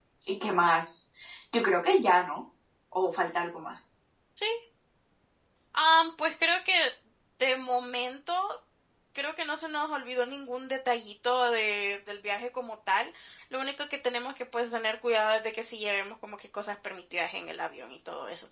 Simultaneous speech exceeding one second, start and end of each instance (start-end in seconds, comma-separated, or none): none